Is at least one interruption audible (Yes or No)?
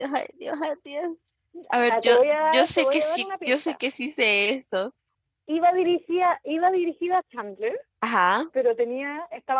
Yes